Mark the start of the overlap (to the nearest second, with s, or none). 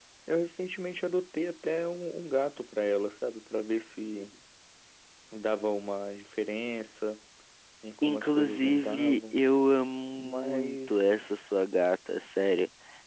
8 s